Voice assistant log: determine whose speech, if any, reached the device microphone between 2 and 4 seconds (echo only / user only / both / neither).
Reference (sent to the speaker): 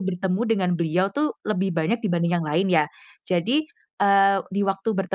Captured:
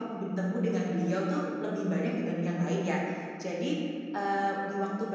echo only